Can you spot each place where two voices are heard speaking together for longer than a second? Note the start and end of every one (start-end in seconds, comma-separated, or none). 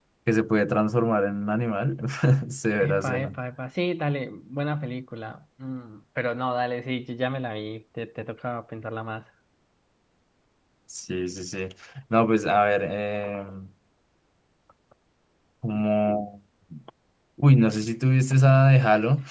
none